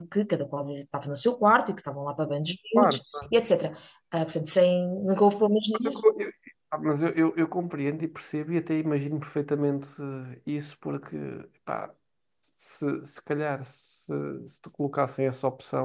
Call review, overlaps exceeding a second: none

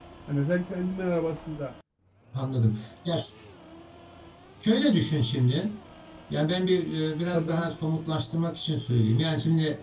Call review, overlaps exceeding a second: none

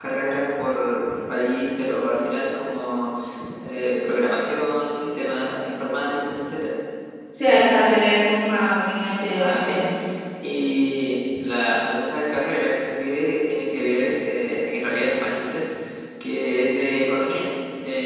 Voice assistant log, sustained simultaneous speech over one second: none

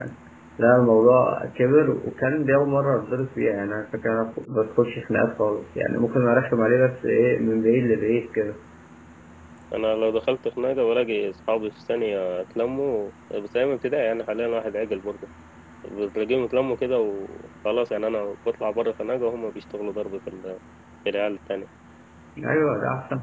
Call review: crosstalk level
none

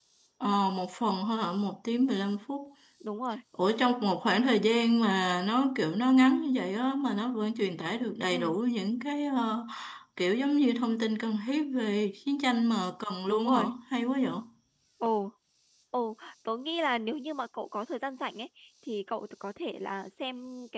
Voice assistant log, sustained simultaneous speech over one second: none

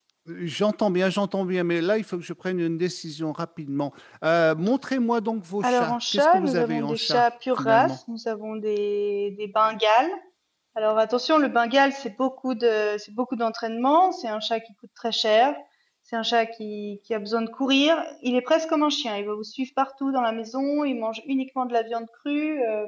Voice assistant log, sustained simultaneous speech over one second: present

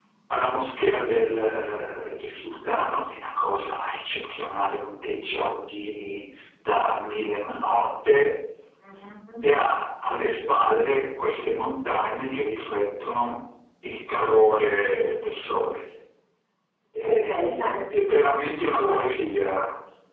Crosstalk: present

